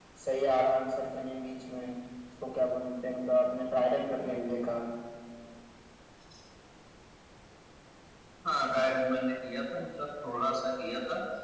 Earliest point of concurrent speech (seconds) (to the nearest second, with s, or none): none